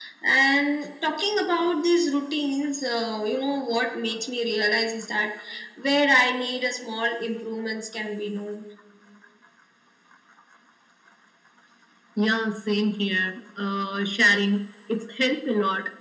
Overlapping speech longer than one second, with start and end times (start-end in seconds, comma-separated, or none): none